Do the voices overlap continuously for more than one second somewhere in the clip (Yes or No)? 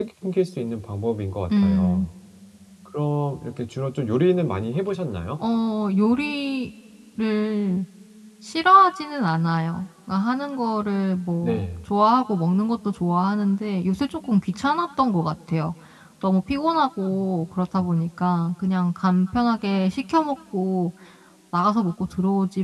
No